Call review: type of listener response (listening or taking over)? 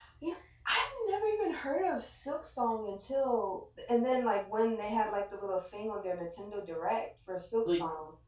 taking over